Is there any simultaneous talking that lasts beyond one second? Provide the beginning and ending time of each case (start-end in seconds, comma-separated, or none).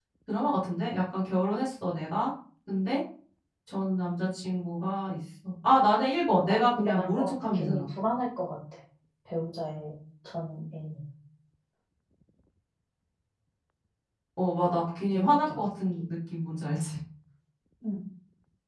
6.3-7.8